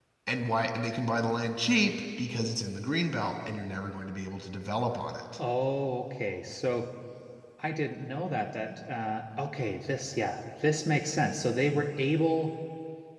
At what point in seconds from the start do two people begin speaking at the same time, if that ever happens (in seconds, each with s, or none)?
none